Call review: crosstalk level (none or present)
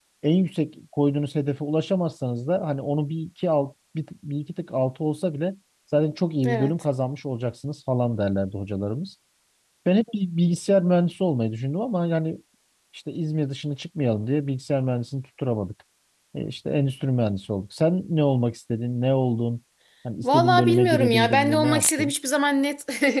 present